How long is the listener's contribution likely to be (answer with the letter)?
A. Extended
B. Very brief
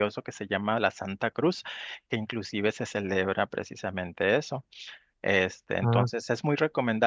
B